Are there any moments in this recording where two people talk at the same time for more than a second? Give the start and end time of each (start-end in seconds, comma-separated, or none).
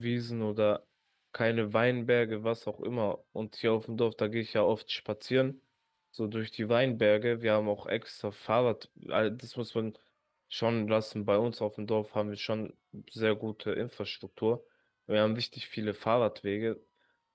none